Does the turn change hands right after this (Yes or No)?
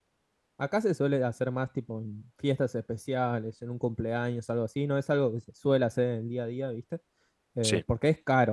No